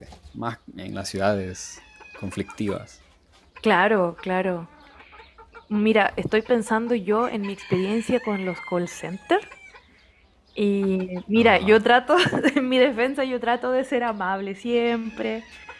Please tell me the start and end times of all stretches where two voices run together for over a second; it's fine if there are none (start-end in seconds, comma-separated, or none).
none